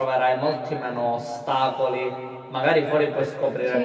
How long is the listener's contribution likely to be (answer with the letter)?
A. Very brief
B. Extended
A